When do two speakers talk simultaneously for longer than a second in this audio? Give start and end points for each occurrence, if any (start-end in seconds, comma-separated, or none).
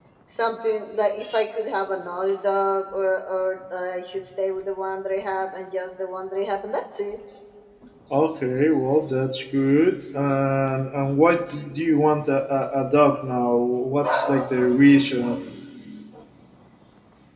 none